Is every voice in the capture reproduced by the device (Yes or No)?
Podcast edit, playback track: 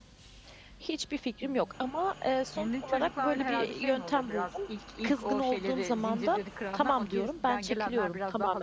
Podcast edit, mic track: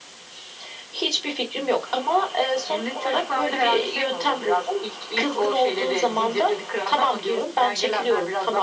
Yes